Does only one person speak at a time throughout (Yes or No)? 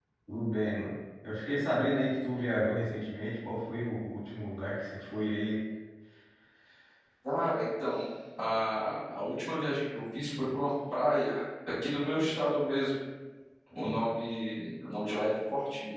Yes